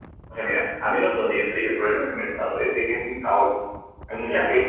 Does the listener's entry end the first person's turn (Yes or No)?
No